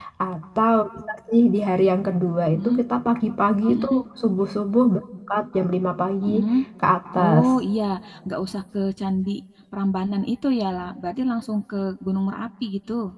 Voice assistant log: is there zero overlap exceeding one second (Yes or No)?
Yes